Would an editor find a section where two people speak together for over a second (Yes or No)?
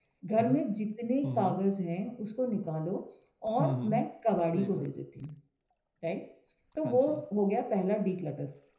No